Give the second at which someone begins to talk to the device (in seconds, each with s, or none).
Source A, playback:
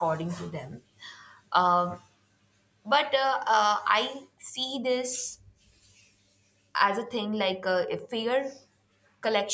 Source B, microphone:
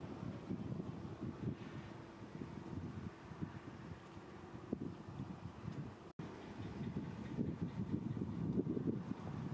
none